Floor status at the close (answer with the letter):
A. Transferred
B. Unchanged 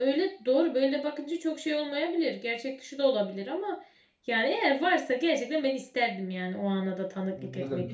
A